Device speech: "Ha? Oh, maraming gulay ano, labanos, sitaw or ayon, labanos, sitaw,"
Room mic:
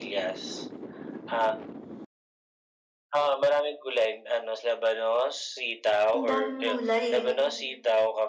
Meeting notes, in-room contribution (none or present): present